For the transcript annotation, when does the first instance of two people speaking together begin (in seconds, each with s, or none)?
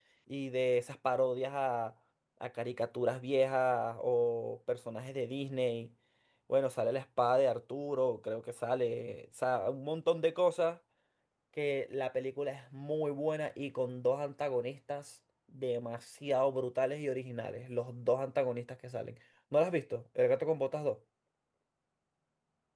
none